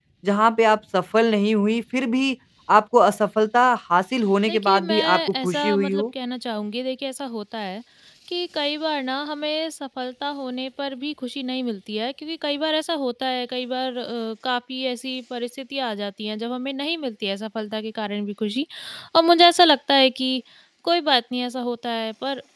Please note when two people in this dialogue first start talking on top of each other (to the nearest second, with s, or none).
4 s